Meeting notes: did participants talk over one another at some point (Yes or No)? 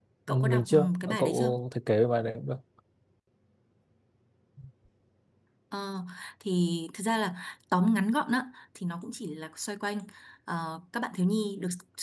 Yes